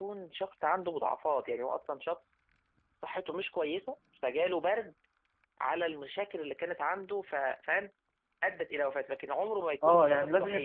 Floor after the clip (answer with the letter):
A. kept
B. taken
B